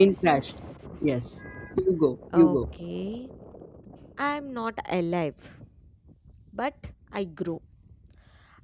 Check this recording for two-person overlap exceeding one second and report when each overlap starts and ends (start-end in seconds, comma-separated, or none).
none